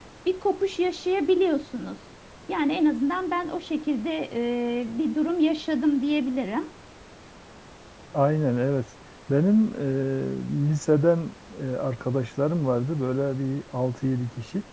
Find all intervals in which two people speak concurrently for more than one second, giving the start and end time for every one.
none

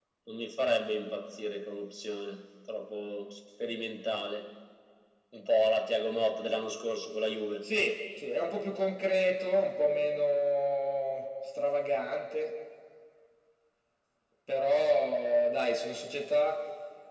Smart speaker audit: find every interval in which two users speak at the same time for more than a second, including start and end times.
none

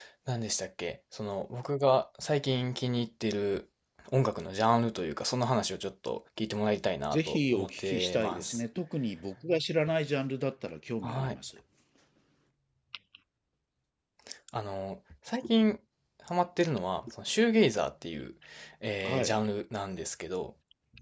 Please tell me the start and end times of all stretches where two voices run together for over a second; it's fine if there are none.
7.1-8.6

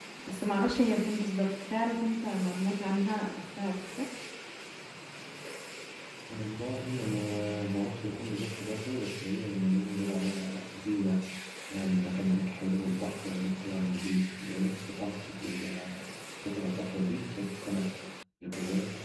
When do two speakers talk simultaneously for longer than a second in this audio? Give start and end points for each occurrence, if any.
none

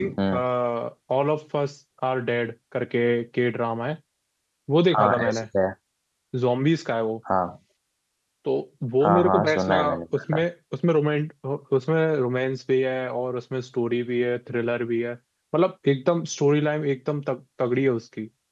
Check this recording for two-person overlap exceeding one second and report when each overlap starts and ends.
9.0-10.4

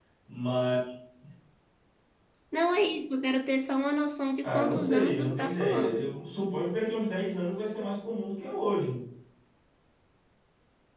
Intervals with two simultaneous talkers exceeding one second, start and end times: 4.4-6.0

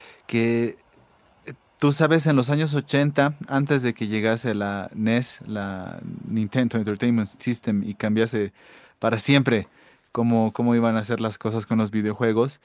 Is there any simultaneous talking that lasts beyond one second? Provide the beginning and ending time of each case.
none

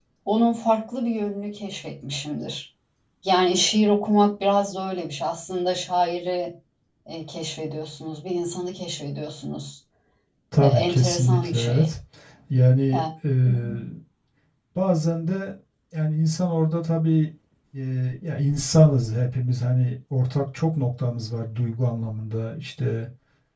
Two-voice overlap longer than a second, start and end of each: 10.6-11.9

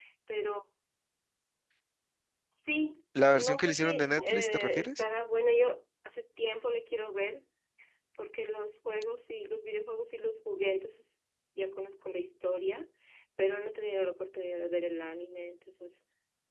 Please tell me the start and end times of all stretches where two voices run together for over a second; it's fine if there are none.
3.4-5.0

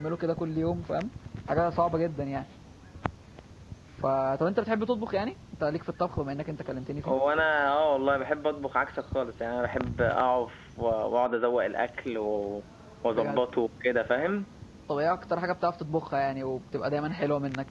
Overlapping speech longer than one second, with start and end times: none

